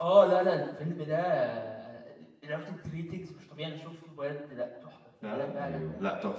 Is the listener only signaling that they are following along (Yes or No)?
No